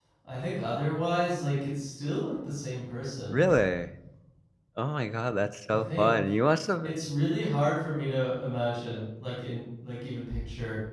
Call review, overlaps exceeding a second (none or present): none